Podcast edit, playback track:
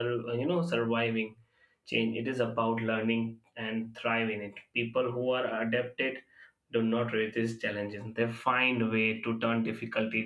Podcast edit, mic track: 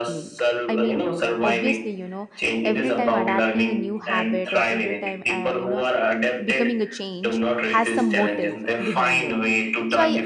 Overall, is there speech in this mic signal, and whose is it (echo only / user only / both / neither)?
both